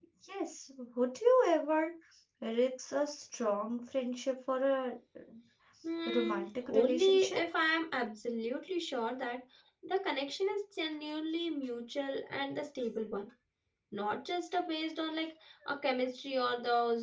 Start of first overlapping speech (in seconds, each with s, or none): 6.1 s